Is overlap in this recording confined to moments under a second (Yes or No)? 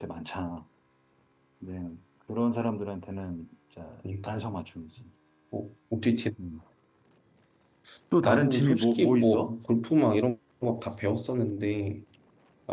No